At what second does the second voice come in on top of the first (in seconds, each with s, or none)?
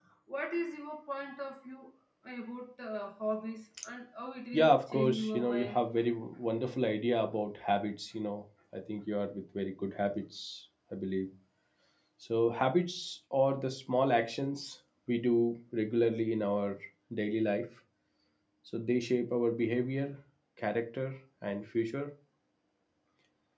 4.5 s